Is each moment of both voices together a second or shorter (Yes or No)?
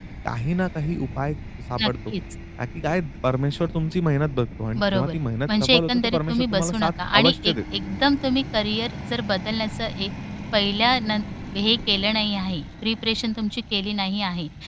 No